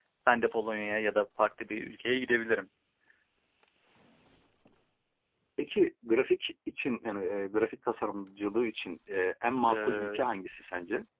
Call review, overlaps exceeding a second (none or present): none